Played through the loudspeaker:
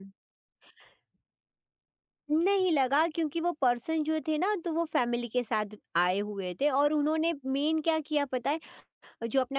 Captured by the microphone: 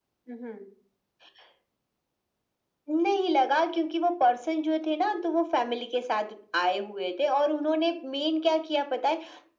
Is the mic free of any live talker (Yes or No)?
Yes